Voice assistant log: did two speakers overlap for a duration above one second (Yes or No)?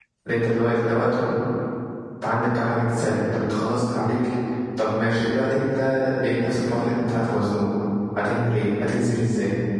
No